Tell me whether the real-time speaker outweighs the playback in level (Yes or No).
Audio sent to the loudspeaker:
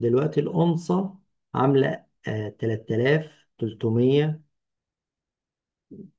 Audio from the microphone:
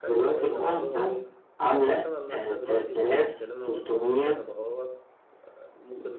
No